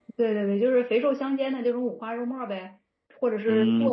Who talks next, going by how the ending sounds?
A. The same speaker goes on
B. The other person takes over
B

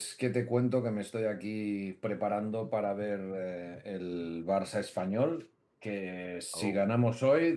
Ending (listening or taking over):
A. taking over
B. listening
B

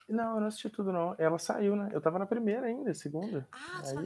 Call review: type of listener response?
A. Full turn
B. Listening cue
A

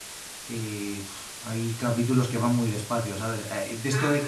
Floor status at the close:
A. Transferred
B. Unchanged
B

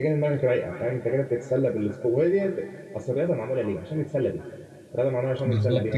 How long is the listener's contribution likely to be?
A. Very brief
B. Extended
A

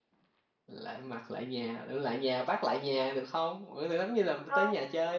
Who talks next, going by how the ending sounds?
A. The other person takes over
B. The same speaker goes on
A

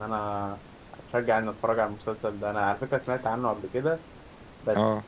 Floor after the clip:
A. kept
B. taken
A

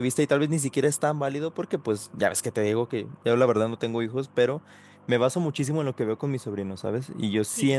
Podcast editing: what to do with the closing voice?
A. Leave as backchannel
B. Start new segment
A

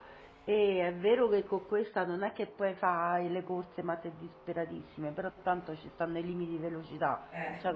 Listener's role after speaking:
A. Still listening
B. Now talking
A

